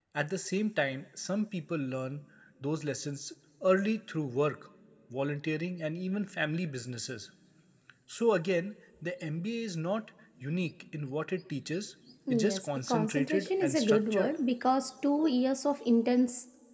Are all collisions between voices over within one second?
No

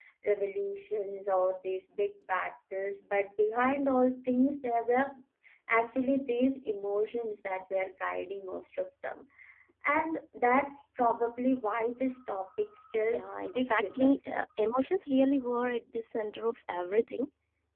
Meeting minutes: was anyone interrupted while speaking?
Yes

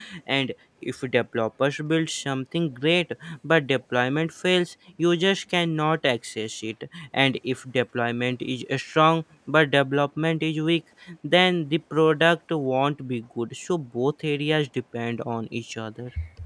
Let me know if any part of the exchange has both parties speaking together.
No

